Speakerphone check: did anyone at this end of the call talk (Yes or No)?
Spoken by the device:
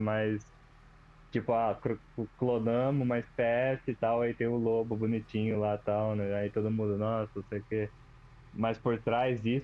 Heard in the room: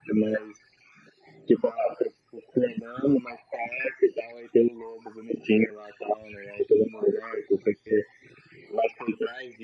No